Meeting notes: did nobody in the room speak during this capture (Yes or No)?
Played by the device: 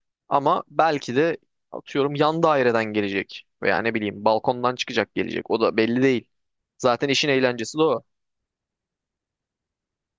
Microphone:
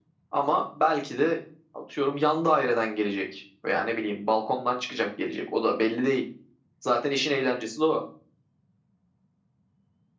Yes